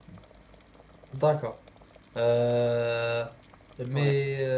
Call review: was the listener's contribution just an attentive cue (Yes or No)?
Yes